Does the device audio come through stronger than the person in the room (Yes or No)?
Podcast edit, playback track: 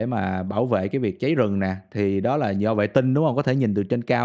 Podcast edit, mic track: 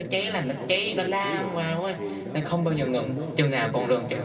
No